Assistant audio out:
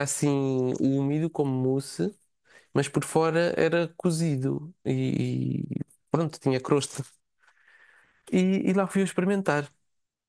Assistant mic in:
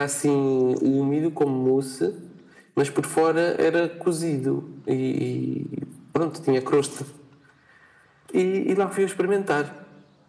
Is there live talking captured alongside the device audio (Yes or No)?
No